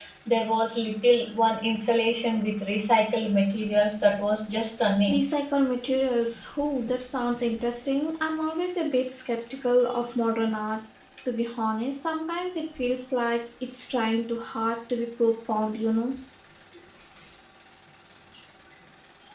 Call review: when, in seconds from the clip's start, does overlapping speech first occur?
none

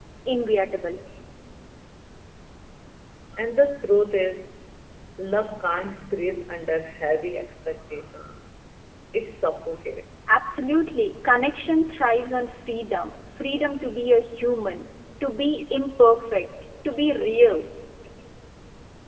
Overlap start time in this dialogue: none

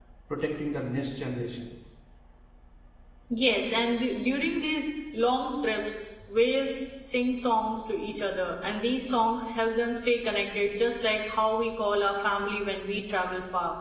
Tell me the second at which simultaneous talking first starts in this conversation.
none

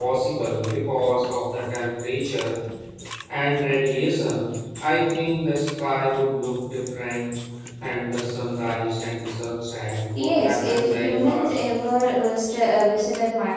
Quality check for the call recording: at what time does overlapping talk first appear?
10.2 s

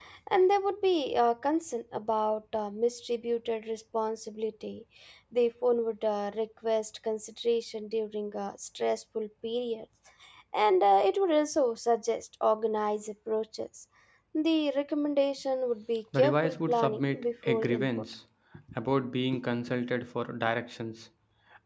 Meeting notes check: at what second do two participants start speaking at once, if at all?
16.1 s

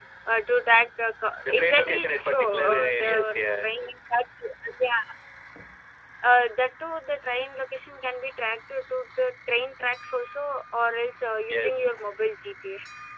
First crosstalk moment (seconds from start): 1.4 s

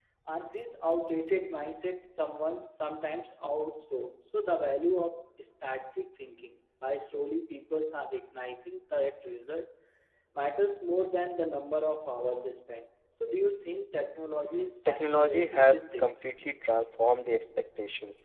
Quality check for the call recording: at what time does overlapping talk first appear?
14.8 s

